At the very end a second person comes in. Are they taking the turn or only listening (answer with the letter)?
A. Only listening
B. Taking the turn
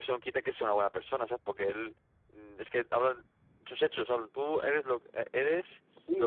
B